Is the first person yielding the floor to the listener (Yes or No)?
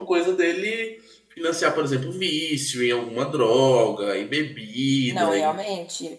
Yes